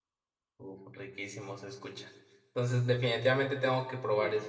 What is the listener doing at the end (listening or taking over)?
listening